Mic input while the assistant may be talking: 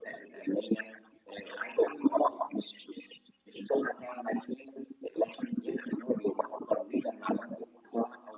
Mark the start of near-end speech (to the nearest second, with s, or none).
none